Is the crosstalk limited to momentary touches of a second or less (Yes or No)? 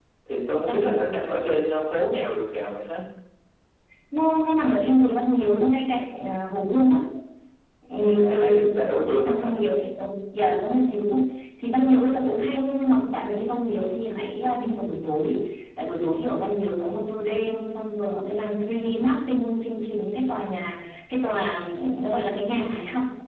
No